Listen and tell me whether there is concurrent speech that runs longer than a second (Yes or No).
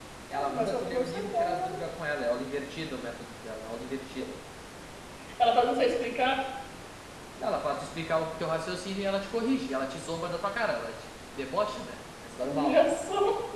Yes